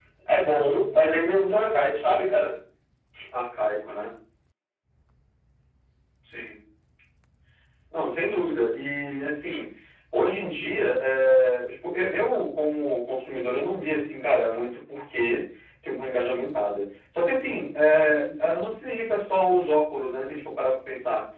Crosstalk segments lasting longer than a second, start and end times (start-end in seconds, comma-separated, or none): none